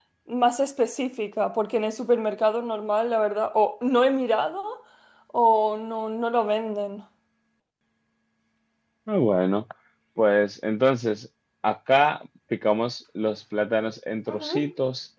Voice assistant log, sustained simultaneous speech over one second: none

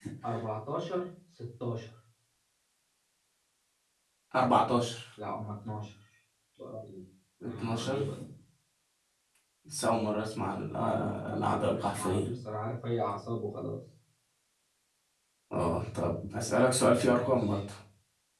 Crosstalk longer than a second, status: present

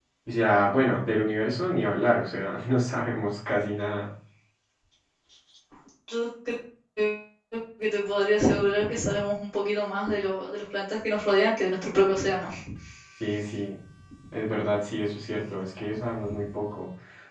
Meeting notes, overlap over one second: none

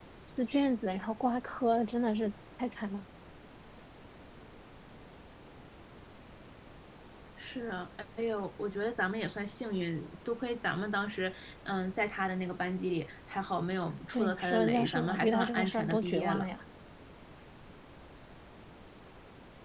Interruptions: present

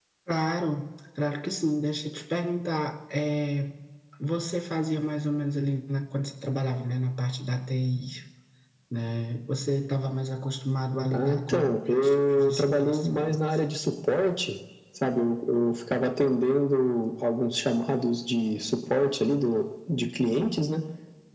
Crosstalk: present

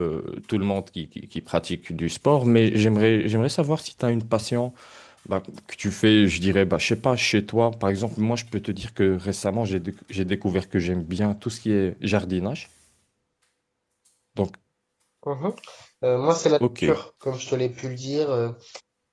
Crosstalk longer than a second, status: none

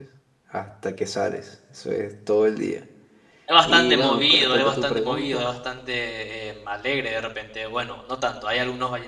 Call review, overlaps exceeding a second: present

